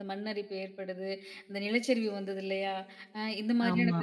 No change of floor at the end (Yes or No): Yes